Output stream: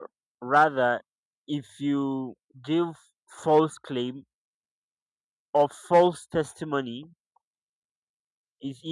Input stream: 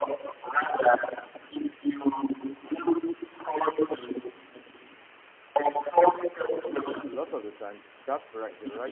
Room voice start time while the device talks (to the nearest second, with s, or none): 6 s